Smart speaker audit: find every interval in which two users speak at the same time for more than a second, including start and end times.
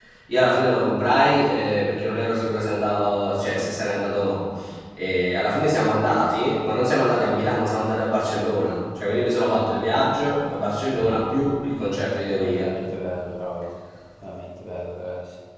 none

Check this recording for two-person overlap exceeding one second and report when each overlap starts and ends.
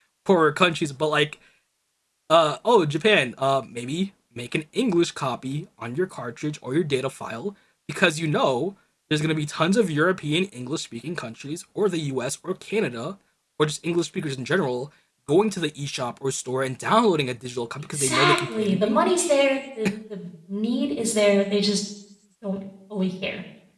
17.9-19.3

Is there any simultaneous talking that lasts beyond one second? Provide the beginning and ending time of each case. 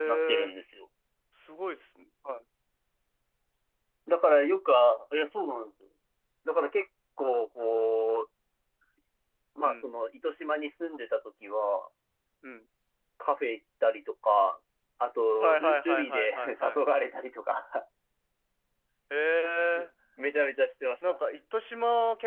15.4-16.8

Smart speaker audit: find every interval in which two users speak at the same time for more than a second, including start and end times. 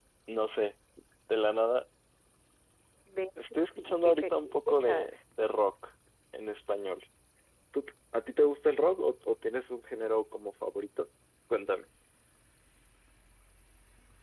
3.5-5.1

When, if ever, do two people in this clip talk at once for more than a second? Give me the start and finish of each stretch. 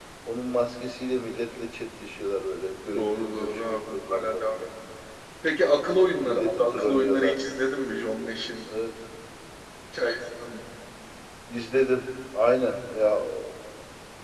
2.9-4.6, 6.2-7.4

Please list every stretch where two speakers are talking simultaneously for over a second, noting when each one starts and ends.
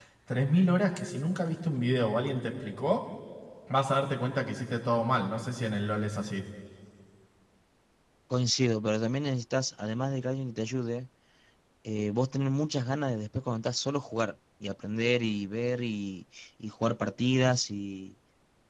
none

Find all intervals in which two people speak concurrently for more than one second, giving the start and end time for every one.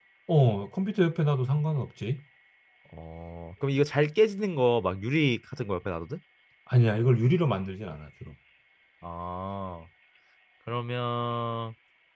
none

